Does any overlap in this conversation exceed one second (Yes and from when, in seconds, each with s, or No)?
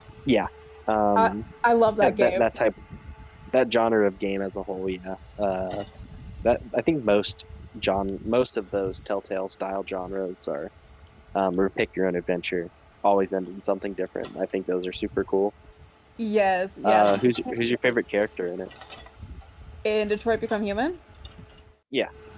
No